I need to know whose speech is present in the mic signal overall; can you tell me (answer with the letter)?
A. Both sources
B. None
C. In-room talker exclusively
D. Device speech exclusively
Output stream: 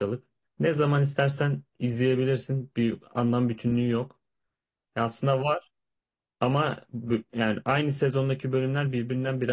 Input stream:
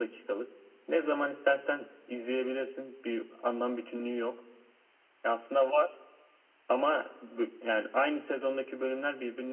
D